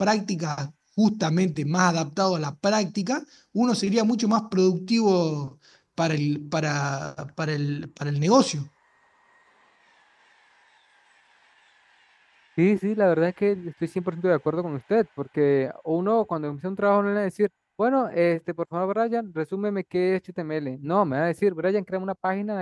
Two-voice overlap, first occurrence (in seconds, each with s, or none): none